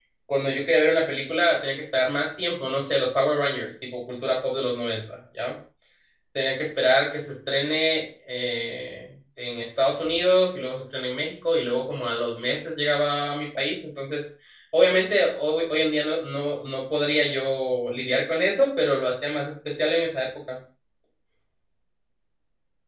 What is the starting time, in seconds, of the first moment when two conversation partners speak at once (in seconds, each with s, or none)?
none